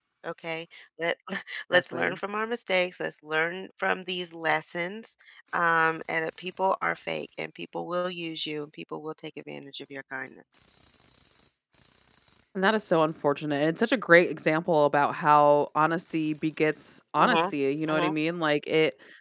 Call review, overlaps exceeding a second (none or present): none